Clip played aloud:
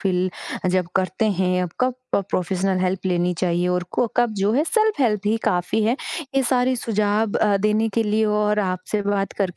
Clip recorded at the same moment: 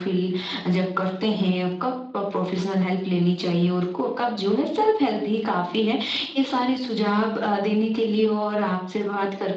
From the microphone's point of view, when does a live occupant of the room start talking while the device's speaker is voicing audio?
none

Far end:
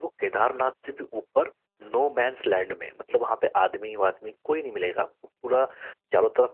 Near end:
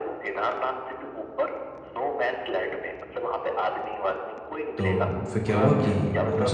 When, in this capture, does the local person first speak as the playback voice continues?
4.8 s

